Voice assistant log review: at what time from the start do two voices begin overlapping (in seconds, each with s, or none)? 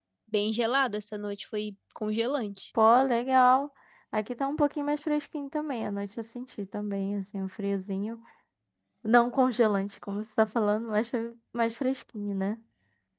none